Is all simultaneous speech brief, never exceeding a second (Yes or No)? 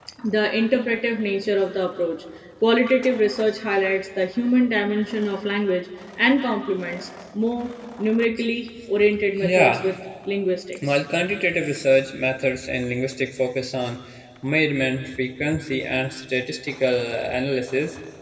Yes